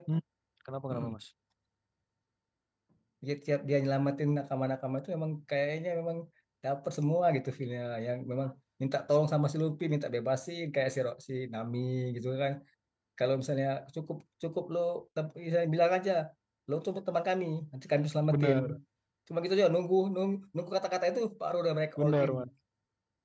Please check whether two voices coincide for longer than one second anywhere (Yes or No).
No